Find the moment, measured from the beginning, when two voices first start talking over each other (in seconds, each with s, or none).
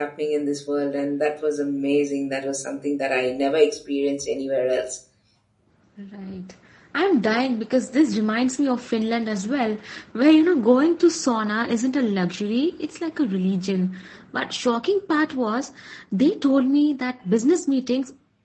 none